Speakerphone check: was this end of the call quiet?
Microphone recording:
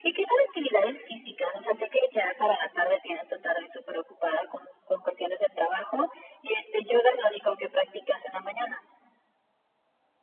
Yes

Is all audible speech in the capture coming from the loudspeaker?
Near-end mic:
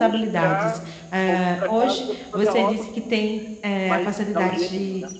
No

